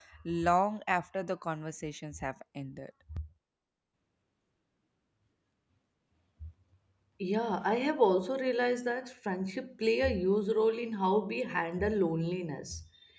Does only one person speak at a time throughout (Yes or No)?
Yes